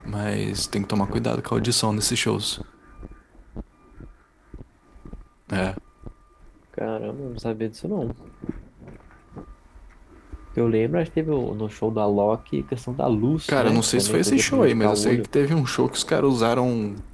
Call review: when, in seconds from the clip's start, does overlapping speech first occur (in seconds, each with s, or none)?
13.5 s